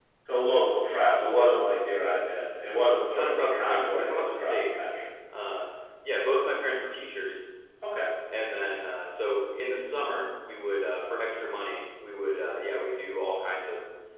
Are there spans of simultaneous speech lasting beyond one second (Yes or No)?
Yes